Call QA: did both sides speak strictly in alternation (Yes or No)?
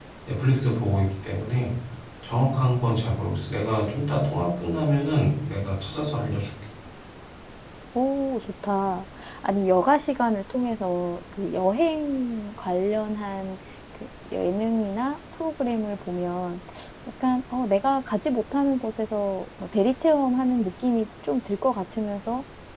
Yes